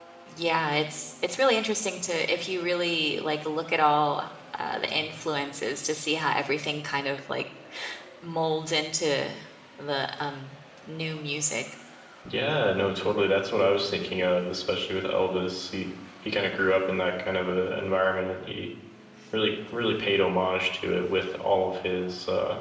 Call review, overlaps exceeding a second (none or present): none